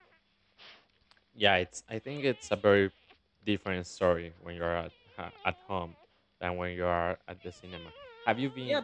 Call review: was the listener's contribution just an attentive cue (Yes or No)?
No